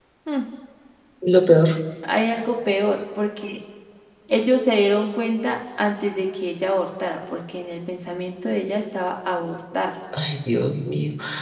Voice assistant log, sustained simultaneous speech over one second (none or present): none